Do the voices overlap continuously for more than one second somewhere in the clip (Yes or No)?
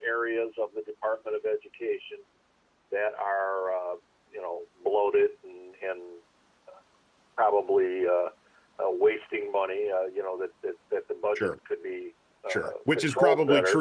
Yes